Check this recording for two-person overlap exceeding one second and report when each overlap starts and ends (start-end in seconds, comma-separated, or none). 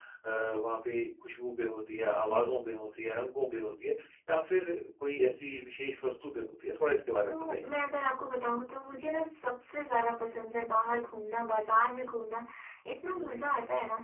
none